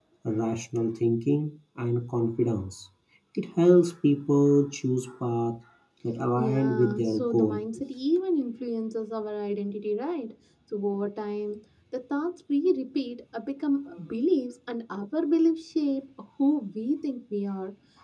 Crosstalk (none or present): present